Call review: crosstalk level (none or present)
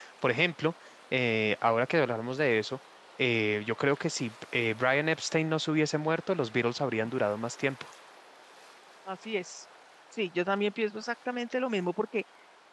none